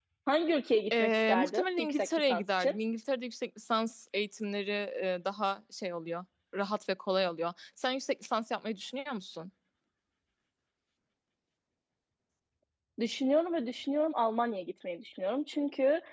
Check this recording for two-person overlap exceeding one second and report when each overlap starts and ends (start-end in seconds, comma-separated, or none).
1.0-2.8